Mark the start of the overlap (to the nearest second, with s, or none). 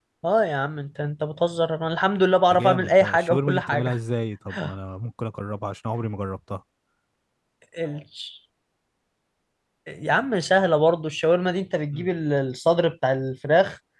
3 s